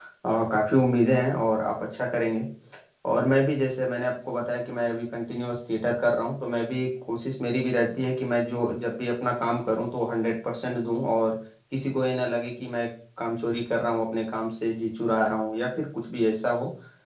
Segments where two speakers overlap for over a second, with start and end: none

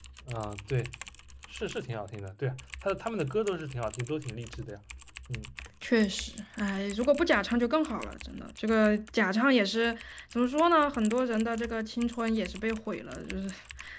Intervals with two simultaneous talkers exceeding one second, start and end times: none

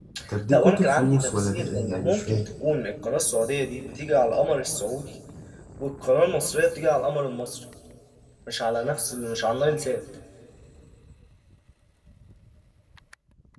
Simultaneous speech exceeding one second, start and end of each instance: 0.5-2.5

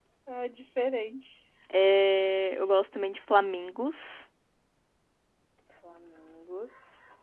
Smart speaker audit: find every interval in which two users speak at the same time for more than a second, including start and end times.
none

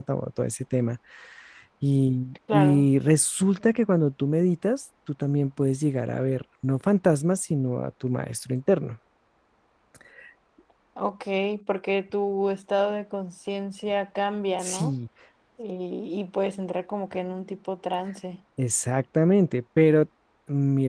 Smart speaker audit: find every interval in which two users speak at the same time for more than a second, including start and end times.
none

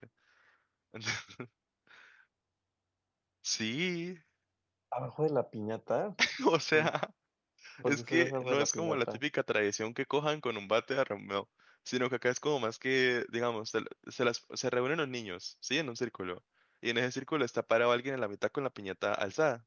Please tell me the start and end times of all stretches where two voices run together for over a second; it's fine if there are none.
7.8-9.2

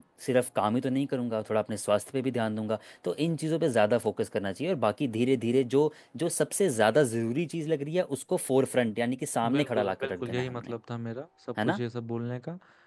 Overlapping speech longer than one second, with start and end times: 9.5-10.7

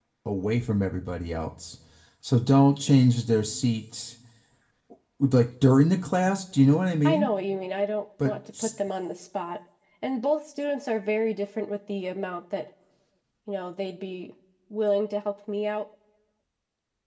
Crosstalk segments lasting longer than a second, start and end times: none

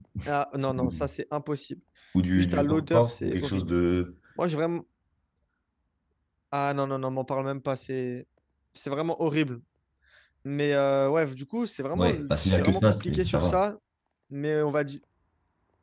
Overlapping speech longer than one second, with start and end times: 2.3-3.7, 11.9-13.6

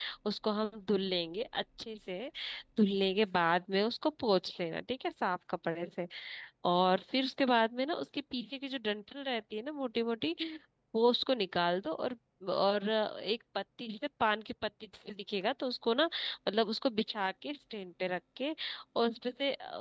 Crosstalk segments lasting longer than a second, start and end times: none

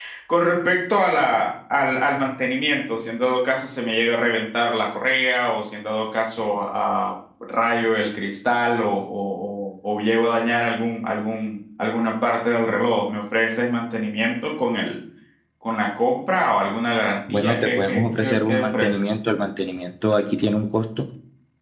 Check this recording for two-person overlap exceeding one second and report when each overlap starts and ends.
17.3-18.9

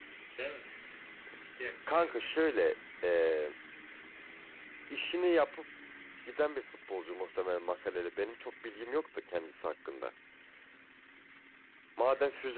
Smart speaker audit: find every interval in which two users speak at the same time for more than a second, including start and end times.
none

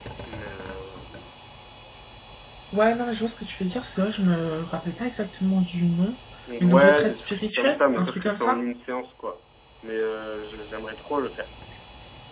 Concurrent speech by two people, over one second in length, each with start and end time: 6.6-8.6

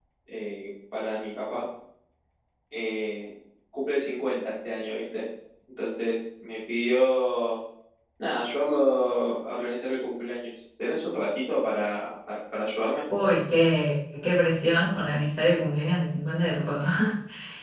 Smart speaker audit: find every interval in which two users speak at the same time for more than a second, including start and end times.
none

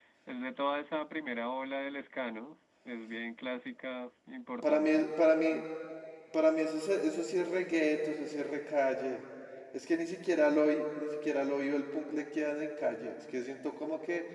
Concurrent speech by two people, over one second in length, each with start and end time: none

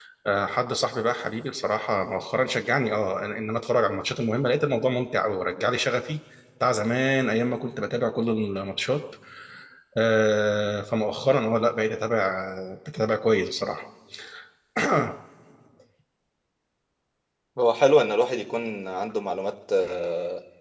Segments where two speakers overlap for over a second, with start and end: none

